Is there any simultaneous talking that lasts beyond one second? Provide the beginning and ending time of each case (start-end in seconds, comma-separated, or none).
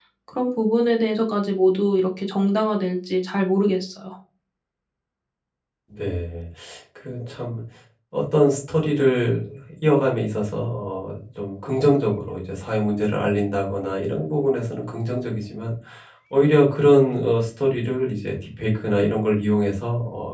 none